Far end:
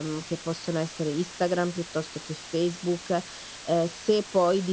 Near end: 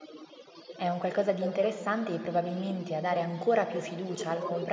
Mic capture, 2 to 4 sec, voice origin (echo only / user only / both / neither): both